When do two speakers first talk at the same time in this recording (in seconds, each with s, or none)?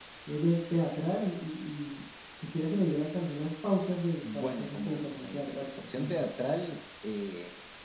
4.2 s